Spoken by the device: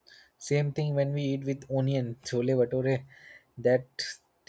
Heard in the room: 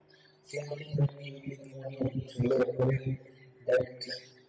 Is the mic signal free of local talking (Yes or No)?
Yes